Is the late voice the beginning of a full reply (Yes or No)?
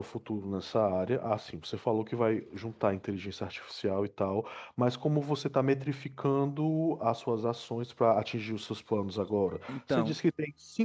No